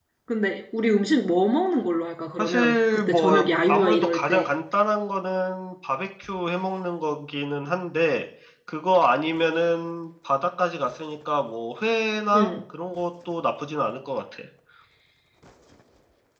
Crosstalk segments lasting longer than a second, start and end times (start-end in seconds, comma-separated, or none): 2.4-4.5